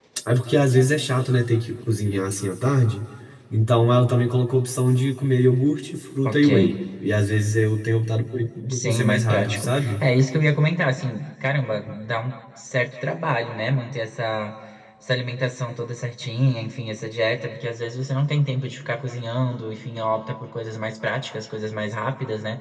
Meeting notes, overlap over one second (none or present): present